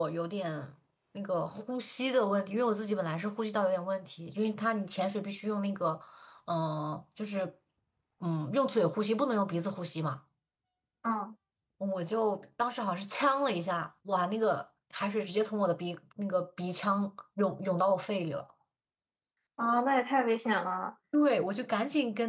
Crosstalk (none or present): none